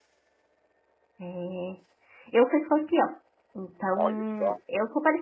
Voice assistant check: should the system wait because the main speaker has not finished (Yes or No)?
Yes